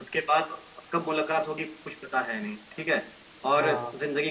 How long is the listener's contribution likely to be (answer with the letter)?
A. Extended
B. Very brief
B